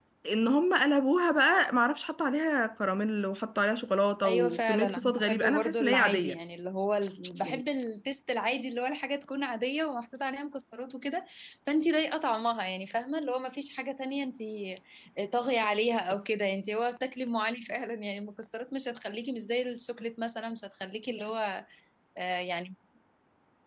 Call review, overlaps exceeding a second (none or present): present